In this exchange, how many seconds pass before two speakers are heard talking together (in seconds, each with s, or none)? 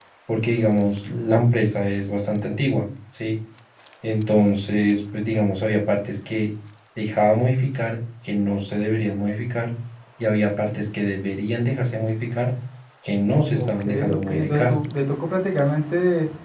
13.5 s